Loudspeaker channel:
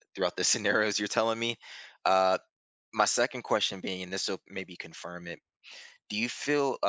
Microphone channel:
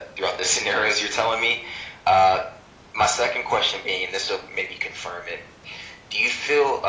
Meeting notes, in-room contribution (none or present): none